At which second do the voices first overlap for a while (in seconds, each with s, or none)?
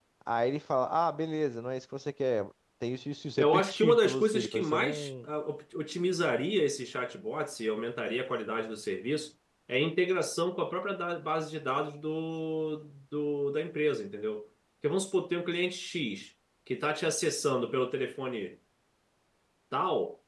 3.4 s